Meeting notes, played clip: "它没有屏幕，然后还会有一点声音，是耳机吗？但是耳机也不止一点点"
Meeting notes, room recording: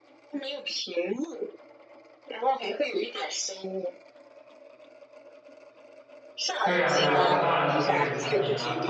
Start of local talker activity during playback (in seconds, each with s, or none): 6.6 s